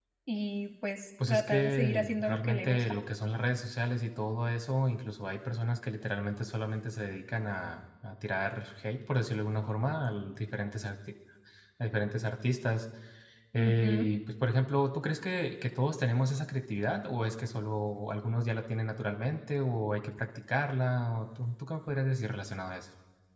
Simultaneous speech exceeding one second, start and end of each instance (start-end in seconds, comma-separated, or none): 1.3-3.0